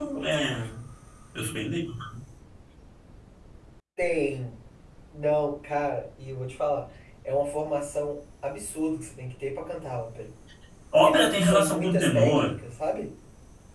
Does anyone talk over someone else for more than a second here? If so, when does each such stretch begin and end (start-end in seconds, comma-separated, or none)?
11.0-12.6